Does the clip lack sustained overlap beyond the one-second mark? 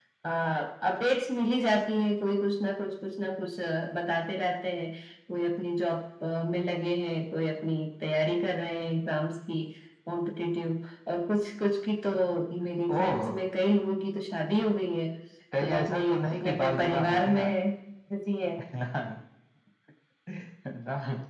No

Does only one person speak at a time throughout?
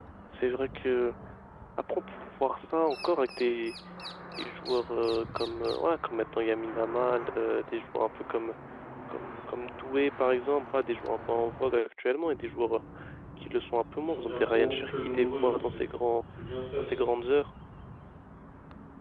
No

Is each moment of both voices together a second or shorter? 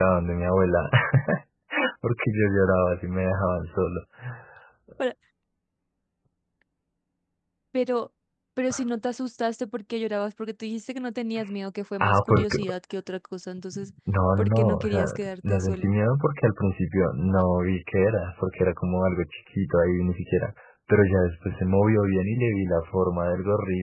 No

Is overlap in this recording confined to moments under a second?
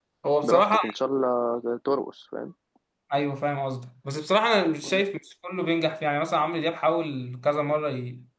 Yes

